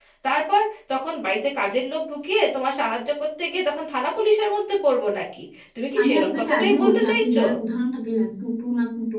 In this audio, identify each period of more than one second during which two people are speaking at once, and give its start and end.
6.0-7.4

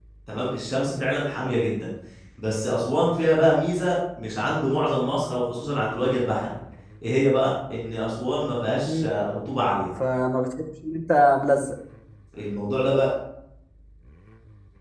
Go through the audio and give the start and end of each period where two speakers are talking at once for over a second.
none

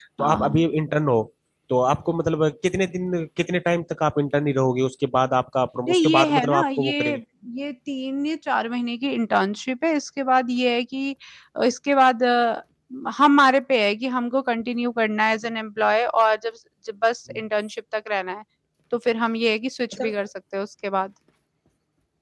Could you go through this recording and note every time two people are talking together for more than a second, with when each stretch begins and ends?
5.9-7.1

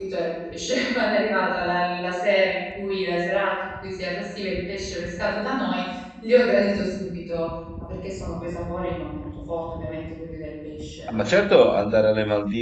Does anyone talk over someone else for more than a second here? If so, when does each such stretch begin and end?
none

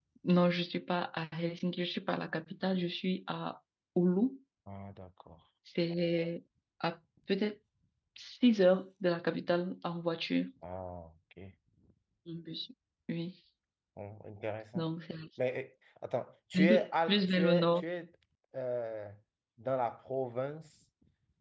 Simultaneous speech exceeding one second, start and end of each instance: 16.6-17.8

